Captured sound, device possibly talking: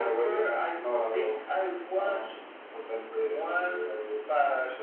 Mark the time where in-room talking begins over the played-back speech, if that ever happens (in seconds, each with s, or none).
none